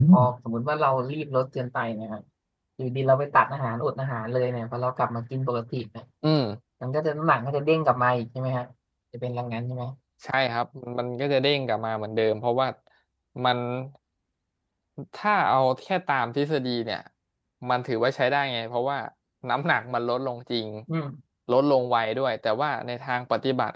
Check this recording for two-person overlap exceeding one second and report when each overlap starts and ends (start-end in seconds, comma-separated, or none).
none